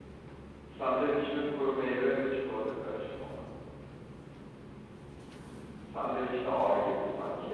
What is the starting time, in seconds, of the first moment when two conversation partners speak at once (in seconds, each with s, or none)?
none